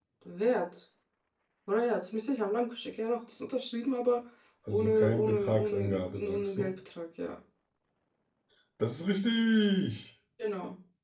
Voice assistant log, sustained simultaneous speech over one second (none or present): present